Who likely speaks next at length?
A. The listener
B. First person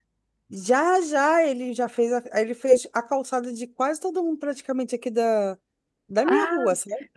A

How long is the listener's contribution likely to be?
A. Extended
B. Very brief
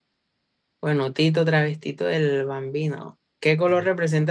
B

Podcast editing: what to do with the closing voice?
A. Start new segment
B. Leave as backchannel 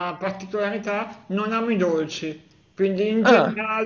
B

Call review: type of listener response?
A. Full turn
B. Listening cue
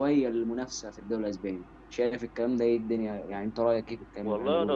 A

